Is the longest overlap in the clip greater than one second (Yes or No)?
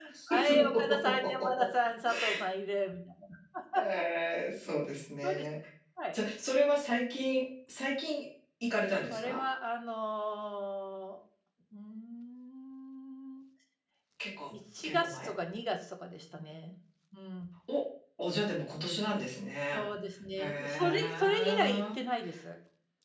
Yes